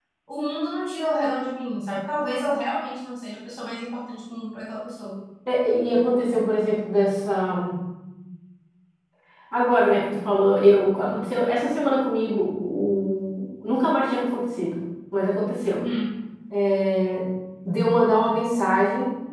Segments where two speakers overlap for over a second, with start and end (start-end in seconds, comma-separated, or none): none